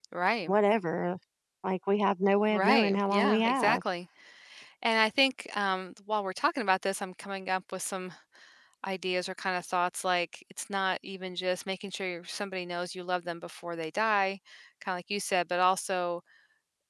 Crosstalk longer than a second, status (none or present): present